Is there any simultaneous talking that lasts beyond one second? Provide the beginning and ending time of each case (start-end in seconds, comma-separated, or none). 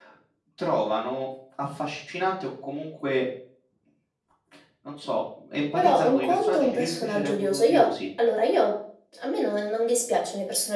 5.8-7.9